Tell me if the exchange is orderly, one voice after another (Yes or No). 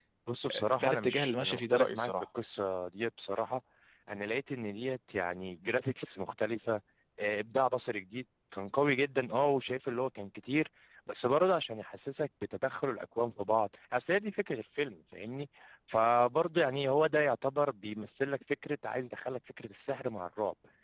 No